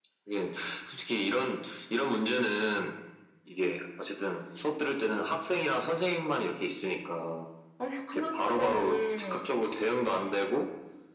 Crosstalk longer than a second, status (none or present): present